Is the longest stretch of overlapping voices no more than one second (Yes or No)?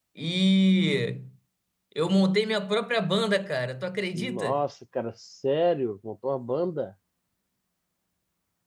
Yes